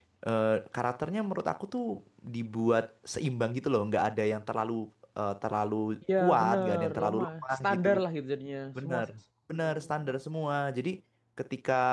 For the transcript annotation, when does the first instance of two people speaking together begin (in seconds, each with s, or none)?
6.2 s